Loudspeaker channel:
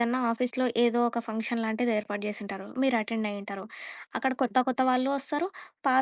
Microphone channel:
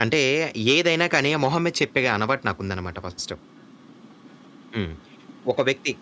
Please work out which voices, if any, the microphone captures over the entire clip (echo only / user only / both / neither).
user only